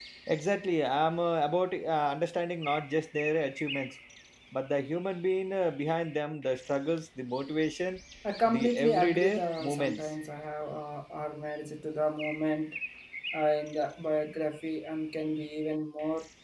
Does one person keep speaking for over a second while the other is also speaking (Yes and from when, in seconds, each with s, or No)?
Yes, from 8.5 s